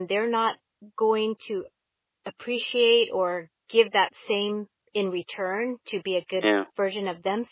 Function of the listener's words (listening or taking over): listening